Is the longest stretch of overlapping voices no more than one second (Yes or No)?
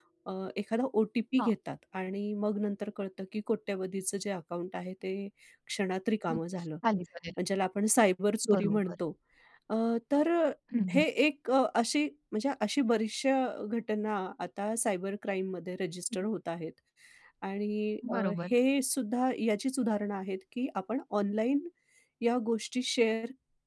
Yes